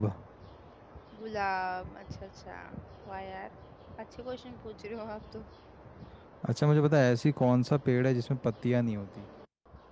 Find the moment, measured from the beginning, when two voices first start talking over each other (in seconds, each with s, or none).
none